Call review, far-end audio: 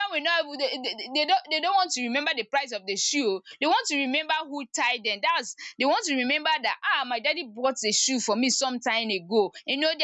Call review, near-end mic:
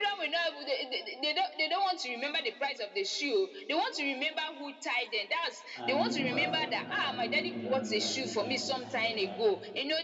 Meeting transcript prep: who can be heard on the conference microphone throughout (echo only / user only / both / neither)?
both